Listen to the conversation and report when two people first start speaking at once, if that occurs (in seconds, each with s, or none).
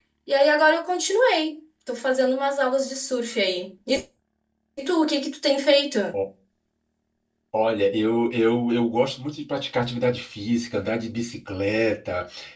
none